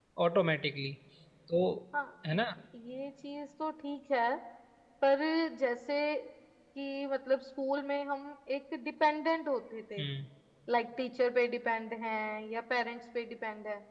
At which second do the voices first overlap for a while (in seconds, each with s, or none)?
none